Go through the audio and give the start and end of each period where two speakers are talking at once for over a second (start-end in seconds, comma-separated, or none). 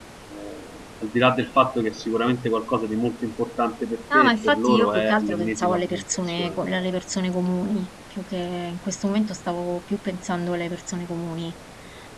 4.1-6.8